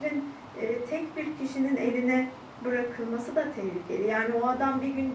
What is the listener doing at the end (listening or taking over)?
listening